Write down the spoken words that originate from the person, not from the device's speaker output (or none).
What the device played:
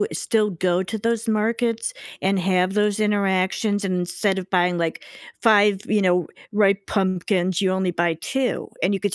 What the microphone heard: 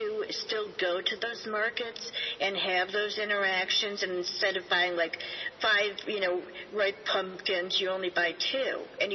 none